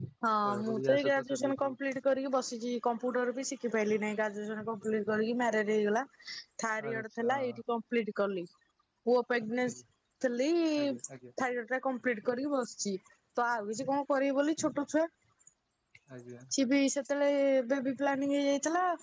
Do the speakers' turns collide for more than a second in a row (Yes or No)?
Yes